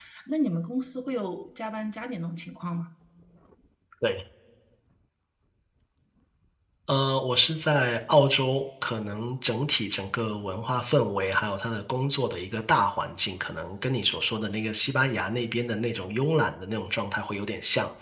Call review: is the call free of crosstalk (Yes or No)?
Yes